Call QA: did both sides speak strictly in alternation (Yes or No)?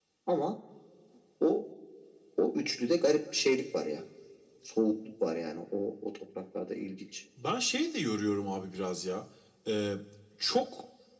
Yes